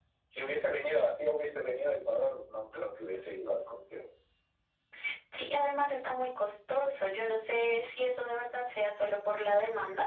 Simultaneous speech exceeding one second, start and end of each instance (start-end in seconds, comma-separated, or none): none